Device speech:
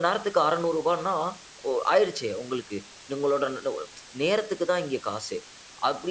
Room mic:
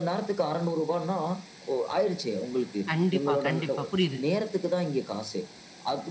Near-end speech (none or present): present